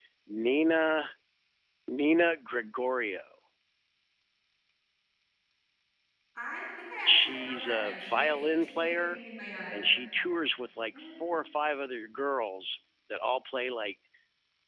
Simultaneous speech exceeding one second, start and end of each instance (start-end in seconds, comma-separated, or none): 7.0-9.2